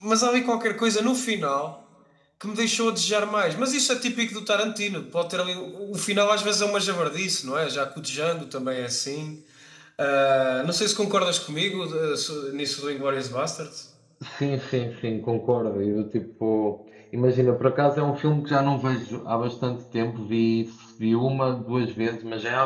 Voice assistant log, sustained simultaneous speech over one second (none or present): none